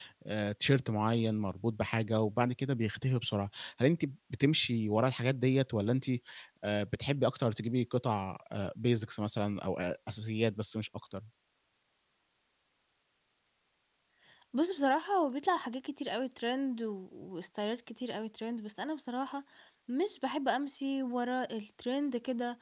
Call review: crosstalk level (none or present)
none